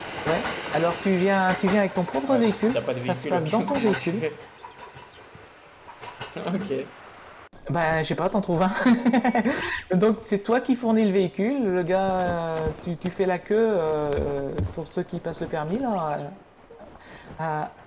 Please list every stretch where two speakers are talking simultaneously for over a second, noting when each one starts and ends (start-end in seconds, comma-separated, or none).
2.2-4.2